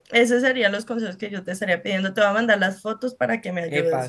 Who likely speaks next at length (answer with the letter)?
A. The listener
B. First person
A